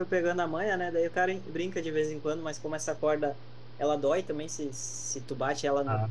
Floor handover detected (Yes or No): No